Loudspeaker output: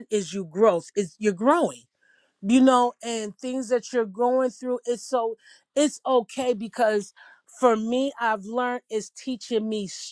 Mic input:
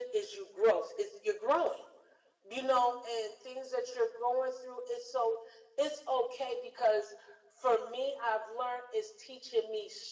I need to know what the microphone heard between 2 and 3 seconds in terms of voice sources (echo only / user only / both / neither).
echo only